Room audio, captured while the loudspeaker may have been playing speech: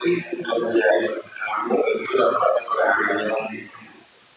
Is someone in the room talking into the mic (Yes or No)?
No